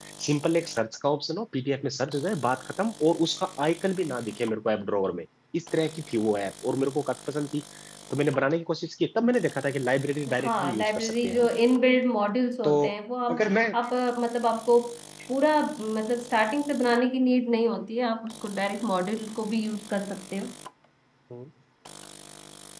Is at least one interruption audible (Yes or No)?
Yes